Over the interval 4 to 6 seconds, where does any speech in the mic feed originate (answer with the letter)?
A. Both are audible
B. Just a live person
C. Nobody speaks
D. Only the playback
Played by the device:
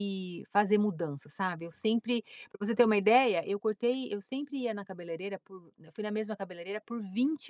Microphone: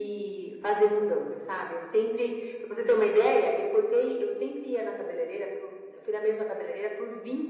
D